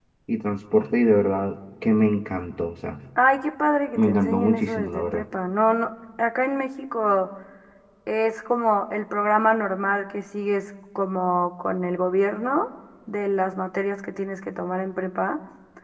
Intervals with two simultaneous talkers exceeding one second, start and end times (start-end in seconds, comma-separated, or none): 4.0-5.2